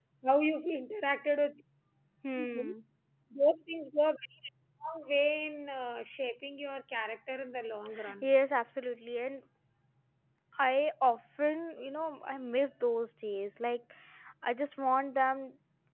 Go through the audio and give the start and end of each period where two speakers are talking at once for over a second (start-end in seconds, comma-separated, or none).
none